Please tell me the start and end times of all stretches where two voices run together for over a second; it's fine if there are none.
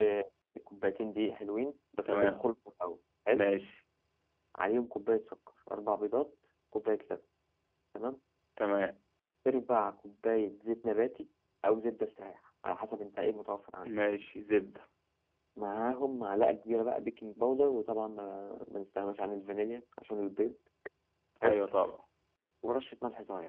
none

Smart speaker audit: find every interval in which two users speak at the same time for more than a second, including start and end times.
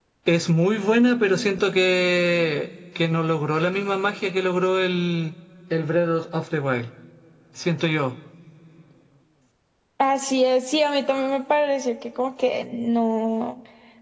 none

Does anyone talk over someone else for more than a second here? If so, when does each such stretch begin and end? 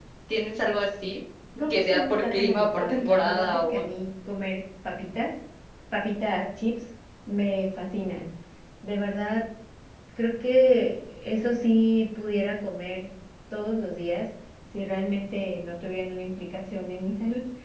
1.7-3.8

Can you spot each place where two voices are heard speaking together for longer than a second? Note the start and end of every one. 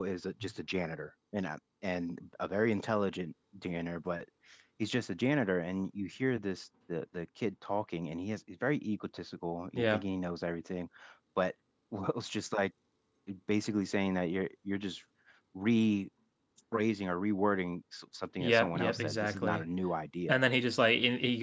18.4-19.6

